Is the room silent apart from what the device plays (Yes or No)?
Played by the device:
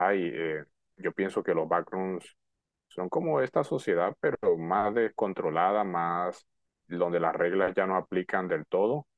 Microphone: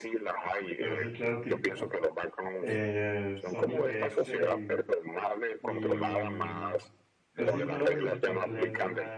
No